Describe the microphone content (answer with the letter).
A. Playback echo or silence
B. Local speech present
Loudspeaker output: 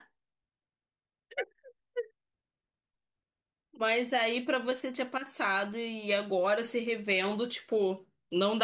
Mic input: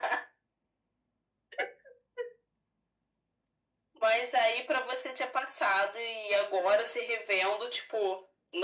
A